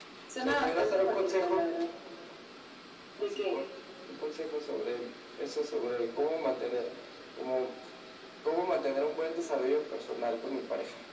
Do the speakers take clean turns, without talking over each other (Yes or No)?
No